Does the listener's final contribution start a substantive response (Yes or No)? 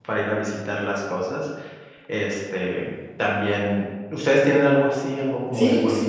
Yes